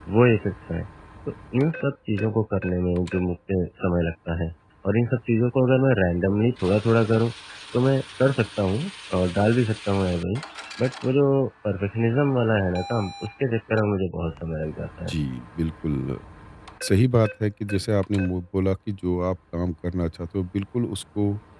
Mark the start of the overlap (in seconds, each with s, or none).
none